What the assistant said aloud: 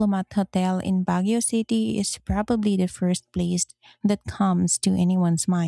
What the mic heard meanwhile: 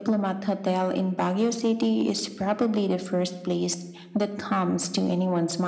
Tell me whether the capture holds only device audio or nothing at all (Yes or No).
Yes